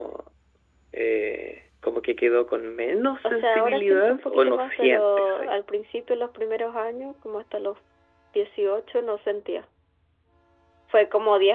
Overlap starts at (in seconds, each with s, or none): 3.2 s